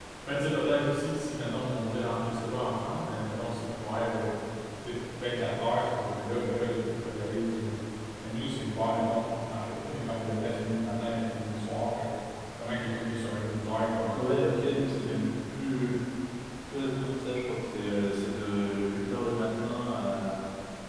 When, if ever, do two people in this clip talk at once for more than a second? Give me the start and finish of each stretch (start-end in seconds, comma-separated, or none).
none